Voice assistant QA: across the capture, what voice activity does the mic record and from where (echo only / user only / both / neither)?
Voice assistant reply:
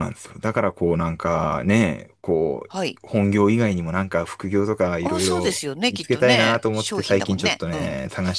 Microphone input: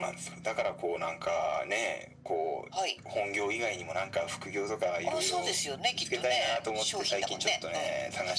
echo only